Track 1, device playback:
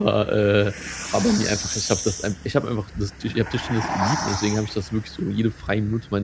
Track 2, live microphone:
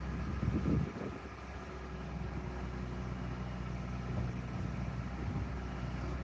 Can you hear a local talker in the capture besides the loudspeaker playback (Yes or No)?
No